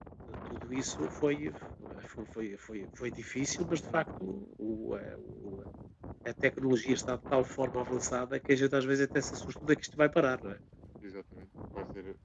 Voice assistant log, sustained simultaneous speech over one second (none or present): none